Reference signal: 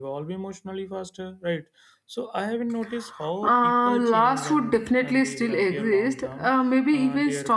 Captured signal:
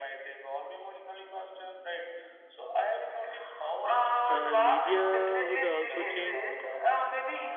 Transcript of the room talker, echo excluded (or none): Uh, media would also change,